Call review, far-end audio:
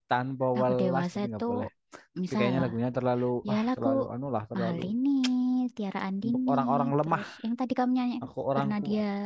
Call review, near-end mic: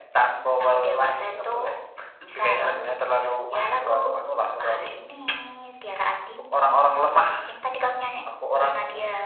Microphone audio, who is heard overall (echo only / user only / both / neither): echo only